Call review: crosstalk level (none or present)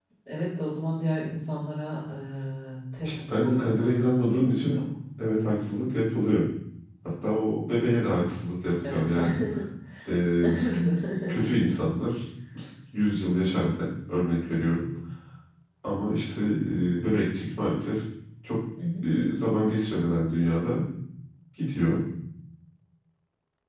present